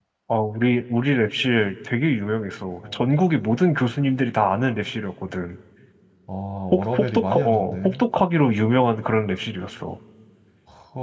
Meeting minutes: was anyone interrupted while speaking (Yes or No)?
Yes